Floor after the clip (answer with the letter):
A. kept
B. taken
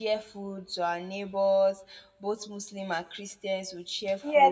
B